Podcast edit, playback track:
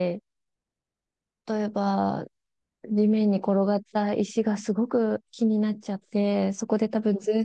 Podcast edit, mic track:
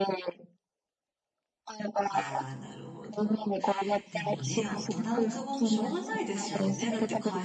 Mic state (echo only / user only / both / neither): both